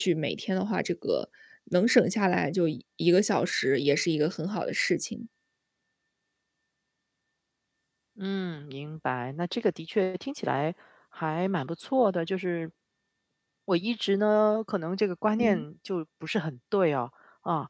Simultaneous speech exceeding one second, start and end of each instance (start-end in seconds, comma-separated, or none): none